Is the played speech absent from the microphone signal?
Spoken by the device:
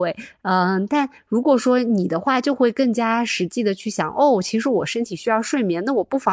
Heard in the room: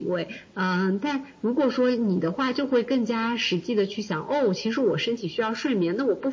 No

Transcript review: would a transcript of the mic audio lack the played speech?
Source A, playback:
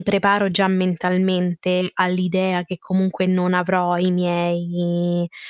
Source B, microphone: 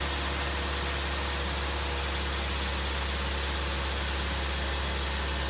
Yes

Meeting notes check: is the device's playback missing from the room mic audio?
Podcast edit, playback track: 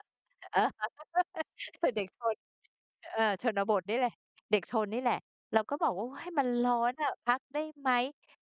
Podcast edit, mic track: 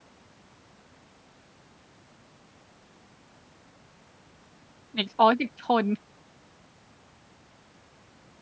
Yes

